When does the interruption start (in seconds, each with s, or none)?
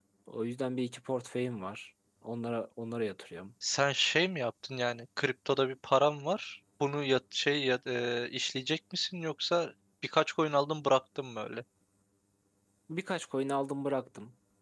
none